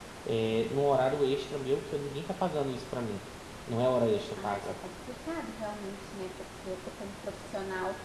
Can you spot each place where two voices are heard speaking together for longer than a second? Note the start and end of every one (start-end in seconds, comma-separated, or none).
none